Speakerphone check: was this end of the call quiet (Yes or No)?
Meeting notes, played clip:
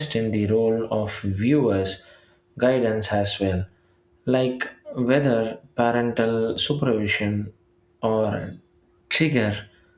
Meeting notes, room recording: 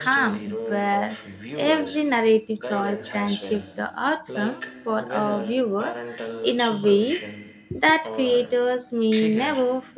No